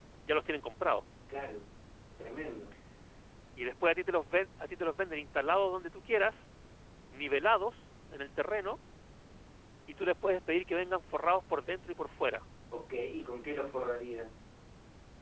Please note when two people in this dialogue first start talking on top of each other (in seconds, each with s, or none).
none